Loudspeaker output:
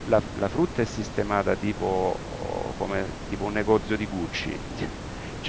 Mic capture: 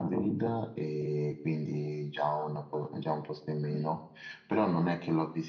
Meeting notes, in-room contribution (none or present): present